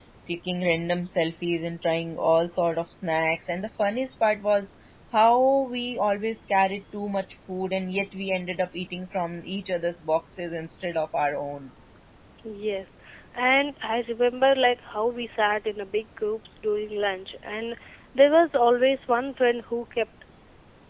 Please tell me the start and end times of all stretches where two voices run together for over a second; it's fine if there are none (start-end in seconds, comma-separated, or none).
none